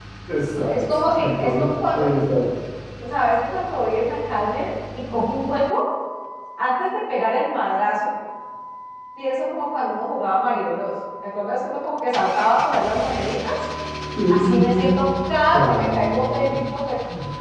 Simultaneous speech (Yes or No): Yes